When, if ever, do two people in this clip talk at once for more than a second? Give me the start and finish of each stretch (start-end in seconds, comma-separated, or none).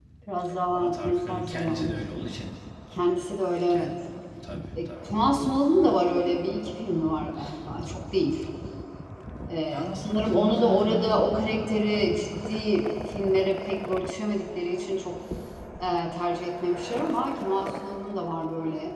0.7-1.9, 9.6-11.3